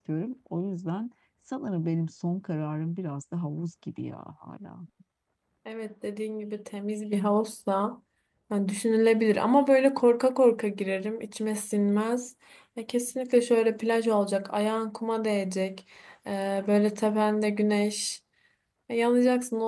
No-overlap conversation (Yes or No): Yes